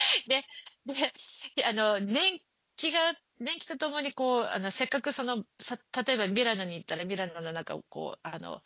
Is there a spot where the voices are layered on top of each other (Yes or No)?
No